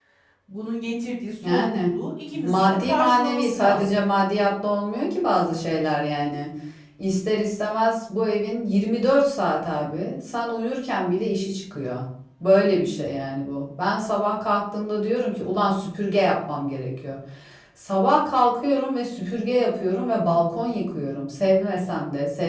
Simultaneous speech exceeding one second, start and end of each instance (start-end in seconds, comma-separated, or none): 2.3-4.0